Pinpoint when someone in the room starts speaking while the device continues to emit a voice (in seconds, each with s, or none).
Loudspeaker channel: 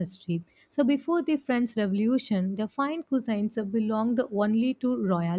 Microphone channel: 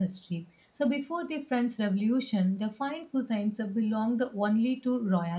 none